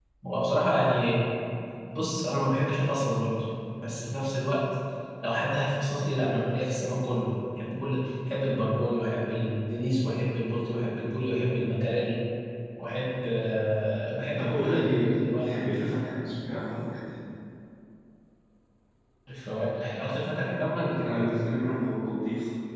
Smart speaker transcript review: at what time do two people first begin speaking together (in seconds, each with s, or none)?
14.4 s